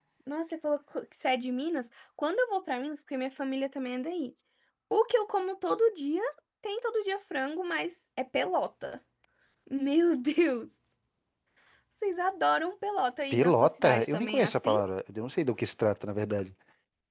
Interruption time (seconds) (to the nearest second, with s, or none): 13 s